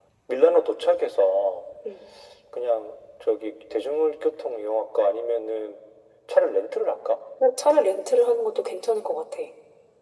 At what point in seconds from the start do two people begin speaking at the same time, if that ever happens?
none

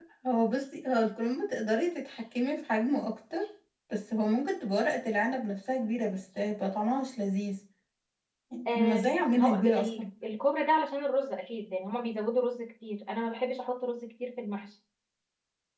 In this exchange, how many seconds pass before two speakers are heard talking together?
8.7 s

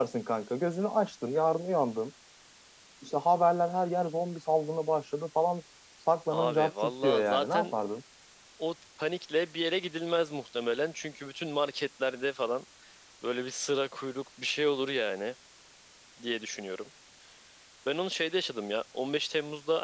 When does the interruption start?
6.3 s

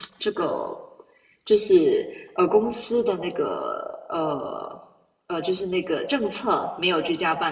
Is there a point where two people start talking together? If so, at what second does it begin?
none

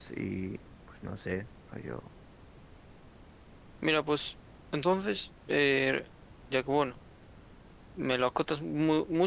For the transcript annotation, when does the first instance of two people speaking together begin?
none

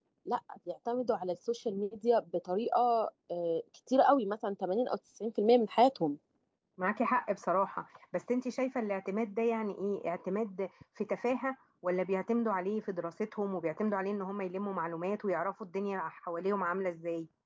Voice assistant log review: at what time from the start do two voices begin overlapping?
none

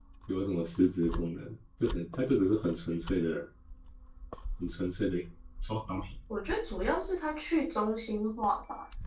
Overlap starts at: none

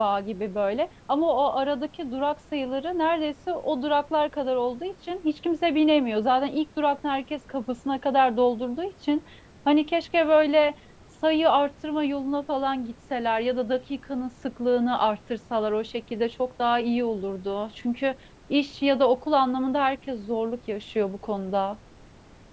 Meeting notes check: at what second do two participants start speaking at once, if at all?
none

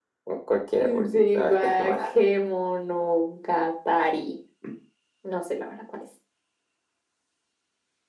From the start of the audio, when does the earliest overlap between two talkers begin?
0.8 s

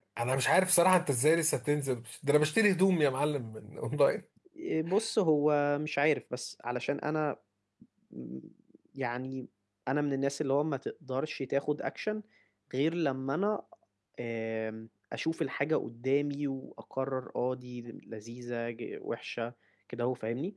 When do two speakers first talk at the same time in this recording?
none

